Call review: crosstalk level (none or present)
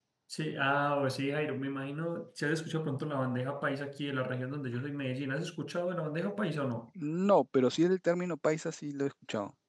none